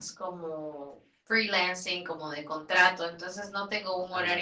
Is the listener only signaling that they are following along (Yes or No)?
Yes